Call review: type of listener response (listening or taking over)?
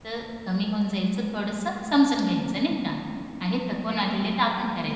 listening